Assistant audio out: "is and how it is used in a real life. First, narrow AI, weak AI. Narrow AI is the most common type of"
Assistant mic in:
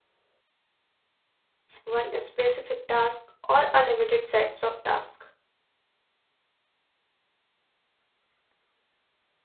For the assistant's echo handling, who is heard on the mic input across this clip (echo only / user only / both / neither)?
user only